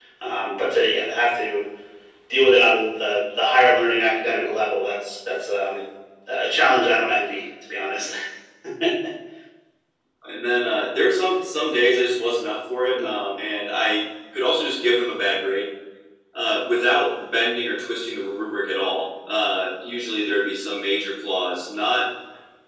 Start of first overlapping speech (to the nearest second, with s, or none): none